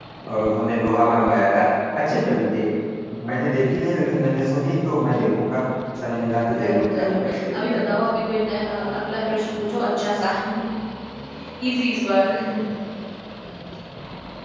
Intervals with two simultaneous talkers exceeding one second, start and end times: 6.6-7.8

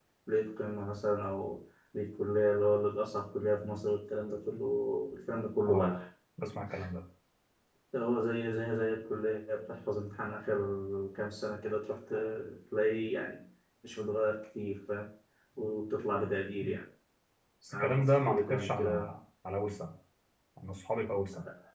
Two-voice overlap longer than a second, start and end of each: 17.7-19.1

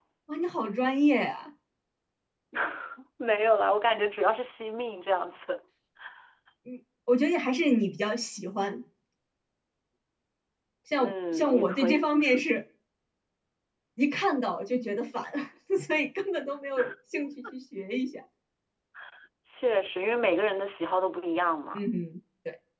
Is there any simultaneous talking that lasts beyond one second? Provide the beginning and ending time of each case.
11.0-12.4

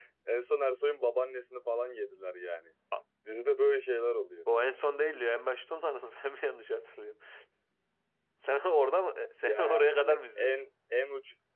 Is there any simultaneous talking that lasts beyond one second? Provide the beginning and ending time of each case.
9.4-10.6

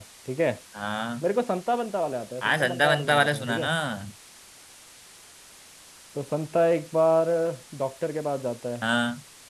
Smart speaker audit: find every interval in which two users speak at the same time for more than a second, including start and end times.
2.4-3.7

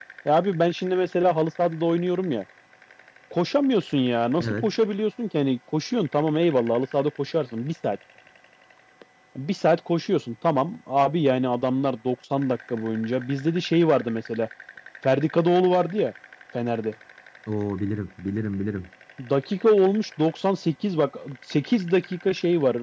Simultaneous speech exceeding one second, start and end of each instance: none

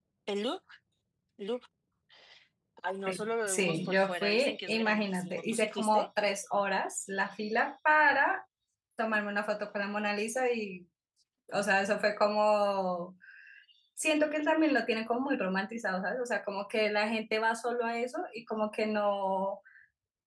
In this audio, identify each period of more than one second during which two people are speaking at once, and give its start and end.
3.1-6.1

